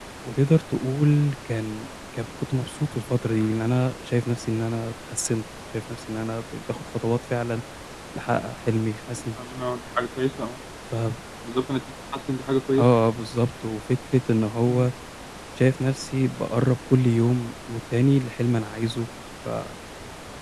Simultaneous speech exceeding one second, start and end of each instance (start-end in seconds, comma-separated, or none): none